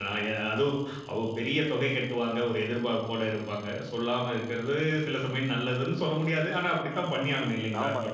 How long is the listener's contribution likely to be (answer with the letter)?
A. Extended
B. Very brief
A